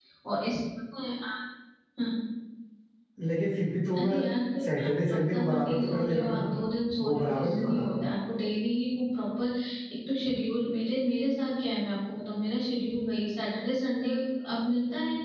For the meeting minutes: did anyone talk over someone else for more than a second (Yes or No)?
Yes